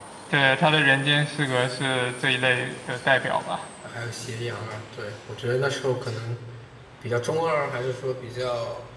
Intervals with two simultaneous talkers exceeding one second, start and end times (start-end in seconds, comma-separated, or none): none